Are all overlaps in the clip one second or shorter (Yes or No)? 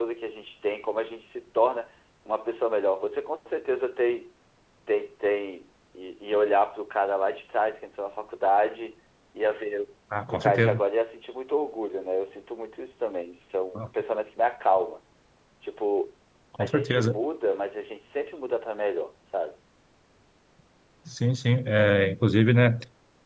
Yes